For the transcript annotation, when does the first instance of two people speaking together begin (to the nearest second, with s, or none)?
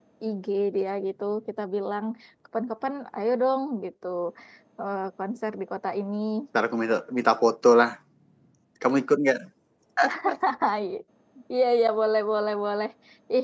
none